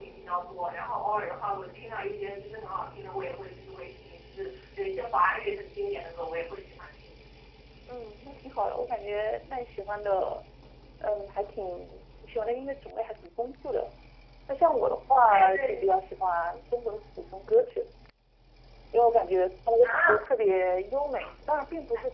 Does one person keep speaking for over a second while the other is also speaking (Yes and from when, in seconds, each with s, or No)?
No